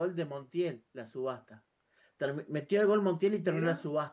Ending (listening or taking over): listening